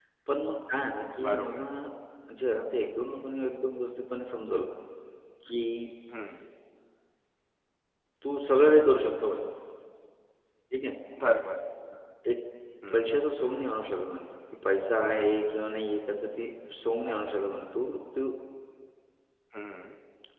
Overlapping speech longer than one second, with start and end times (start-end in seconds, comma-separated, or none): none